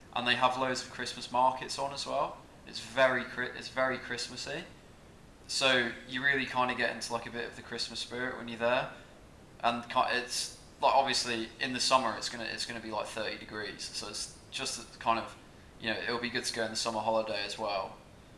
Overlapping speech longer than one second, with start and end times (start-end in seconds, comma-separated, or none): none